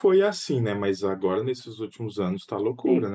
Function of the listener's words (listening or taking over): listening